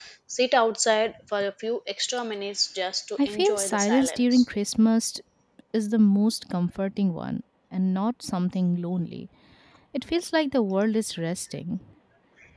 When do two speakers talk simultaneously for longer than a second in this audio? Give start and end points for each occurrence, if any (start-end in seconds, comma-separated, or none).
3.2-4.5